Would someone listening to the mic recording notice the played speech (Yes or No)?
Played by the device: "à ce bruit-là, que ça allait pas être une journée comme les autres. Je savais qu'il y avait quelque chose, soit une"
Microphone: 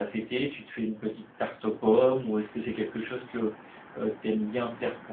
No